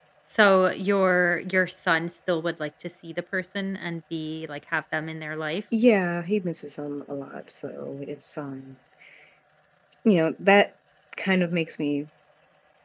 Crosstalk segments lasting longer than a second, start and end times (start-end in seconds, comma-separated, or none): none